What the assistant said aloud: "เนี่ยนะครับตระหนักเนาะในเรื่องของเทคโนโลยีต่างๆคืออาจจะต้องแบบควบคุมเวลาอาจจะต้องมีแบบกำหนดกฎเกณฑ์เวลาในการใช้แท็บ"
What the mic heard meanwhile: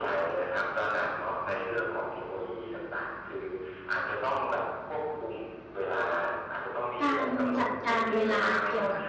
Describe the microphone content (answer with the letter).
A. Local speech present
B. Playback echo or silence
A